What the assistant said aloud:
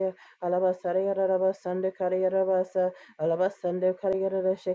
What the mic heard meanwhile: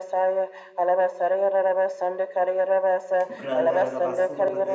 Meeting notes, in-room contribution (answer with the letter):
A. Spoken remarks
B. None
A